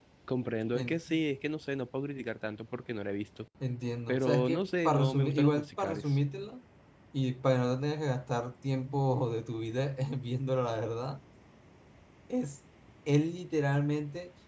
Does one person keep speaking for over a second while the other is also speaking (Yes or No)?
Yes